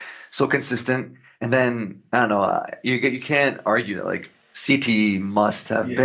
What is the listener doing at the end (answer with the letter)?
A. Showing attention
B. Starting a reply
B